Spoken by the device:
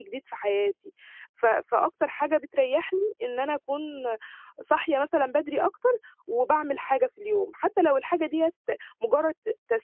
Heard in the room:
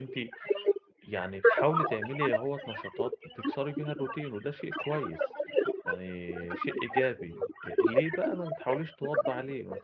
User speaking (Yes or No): Yes